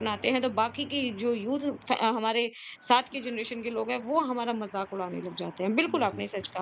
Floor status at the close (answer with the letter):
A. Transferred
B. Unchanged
B